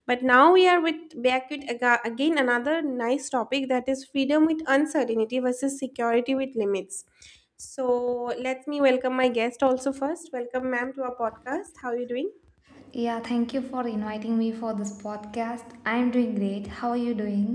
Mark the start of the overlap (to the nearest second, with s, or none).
none